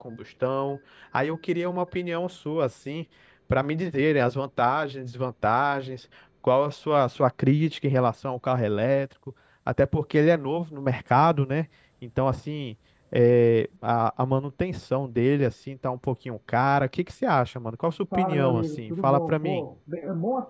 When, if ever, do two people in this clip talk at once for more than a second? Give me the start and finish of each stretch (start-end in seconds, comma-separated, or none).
18.1-19.6